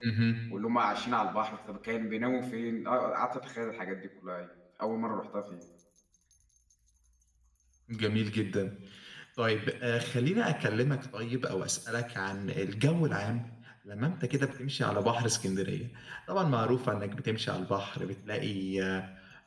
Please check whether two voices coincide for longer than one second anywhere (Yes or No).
No